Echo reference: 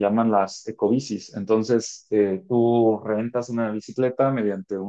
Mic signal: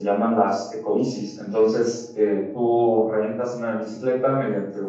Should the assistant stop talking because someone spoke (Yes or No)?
No